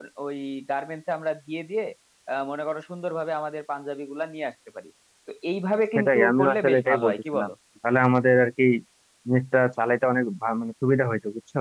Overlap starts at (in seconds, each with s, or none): 6.0 s